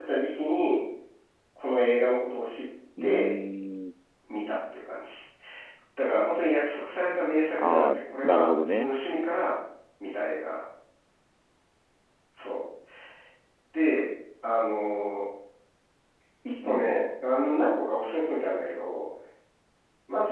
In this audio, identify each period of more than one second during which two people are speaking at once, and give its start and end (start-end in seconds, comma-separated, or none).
7.6-8.9